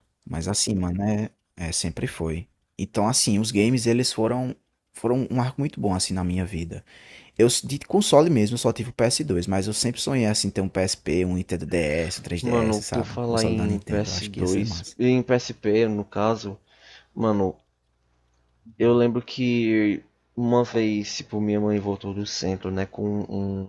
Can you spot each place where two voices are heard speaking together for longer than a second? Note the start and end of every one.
12.4-14.8

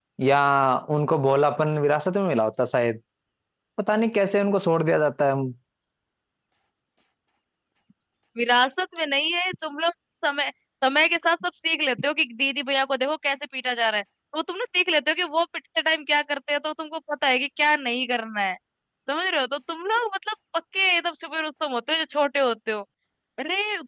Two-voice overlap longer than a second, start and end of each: none

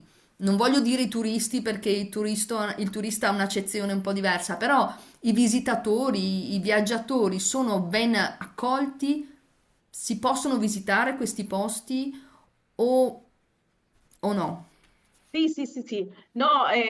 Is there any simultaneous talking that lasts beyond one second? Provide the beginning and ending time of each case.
none

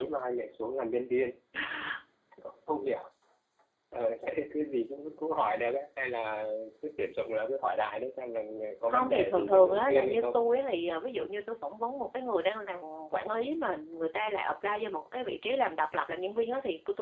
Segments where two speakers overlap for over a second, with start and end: 8.9-10.4

